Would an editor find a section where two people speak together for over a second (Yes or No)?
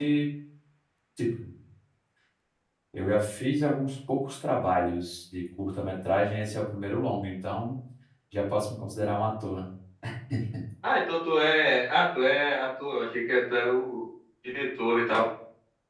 No